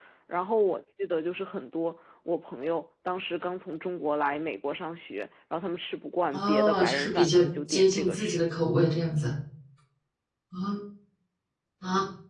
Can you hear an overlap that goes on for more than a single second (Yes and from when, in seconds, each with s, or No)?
Yes, from 6.3 s